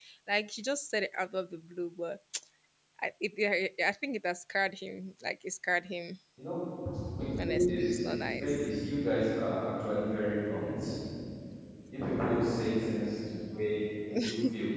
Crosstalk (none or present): present